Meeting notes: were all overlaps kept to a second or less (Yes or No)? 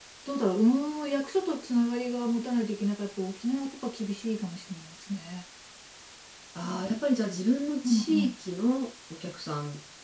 Yes